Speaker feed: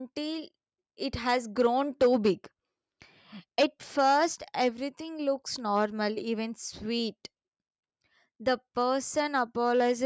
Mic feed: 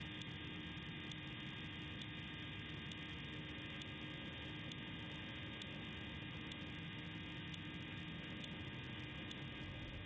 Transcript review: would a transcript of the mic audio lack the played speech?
Yes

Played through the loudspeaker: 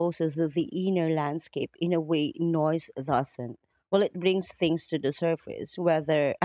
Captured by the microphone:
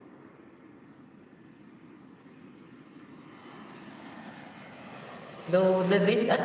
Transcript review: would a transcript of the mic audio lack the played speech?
Yes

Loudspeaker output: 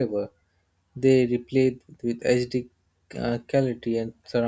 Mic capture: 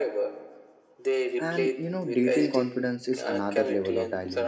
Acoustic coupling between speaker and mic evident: Yes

